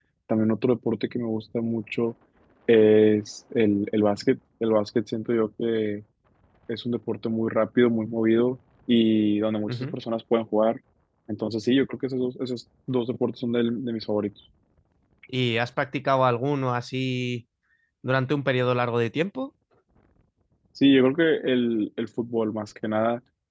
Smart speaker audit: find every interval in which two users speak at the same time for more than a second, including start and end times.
none

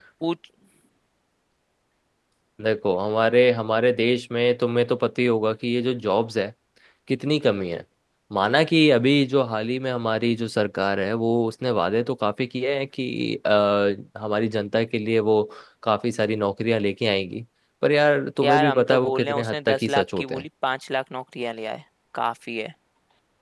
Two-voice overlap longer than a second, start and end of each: 18.4-20.4

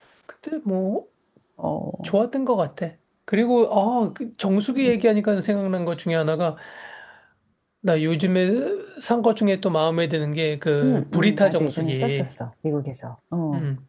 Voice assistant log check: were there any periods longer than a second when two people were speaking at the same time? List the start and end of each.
10.8-12.3

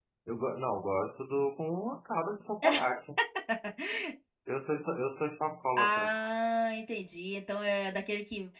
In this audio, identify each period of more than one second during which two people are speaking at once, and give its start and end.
none

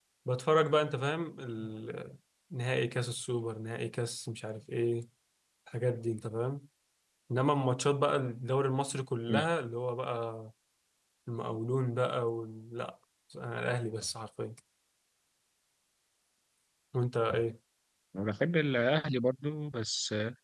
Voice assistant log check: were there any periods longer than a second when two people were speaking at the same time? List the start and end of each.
none

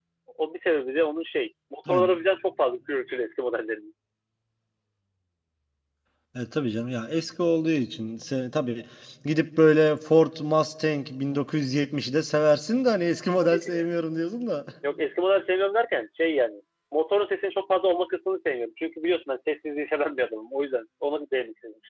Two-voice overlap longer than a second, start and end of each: none

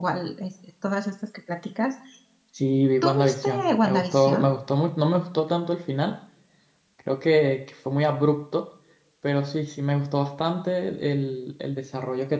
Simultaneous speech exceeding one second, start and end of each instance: 3.0-4.5

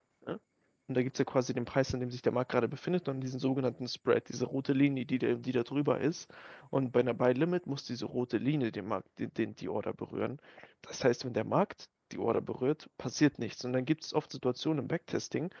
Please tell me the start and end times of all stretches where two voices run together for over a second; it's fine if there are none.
none

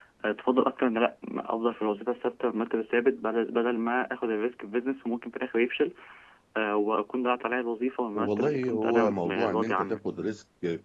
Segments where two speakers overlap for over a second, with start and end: 8.2-10.1

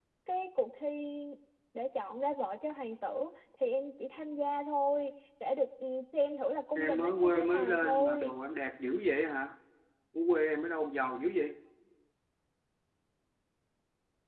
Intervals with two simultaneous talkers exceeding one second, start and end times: 6.8-8.3

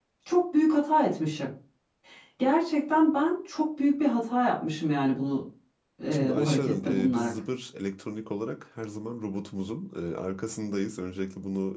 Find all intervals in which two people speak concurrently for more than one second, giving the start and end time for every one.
6.1-7.4

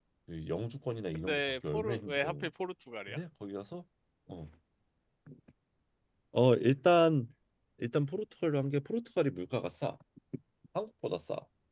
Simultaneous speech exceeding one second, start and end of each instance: 1.1-2.5

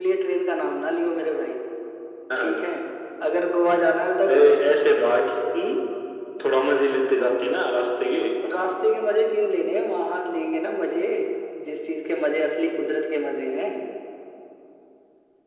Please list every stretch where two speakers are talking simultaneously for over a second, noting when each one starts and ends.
none

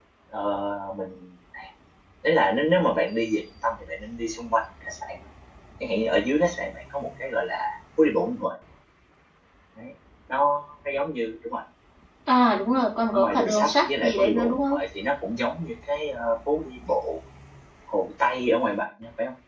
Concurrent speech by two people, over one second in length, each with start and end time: 13.1-14.8

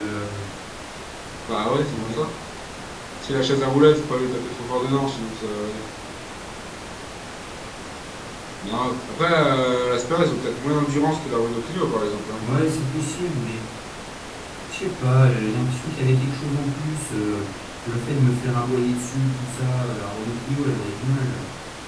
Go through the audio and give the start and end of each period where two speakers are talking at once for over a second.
none

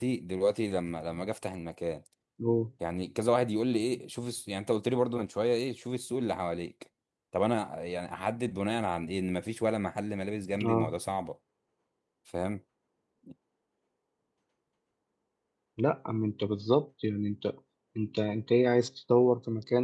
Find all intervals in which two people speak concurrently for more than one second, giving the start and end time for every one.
none

